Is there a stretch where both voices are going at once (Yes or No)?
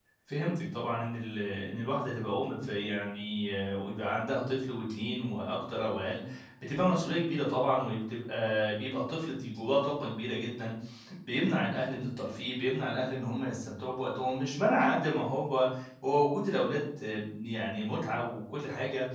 No